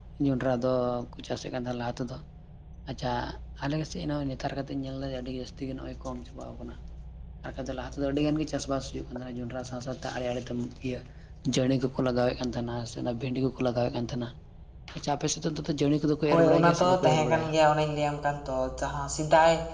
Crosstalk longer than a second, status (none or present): present